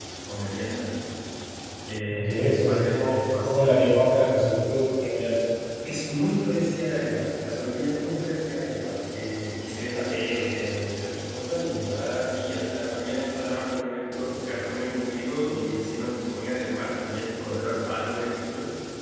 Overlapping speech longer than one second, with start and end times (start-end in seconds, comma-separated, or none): 2.1-4.4